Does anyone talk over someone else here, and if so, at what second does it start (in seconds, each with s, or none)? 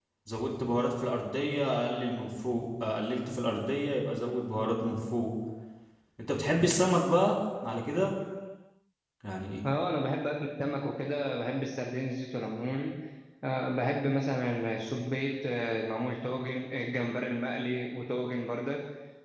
none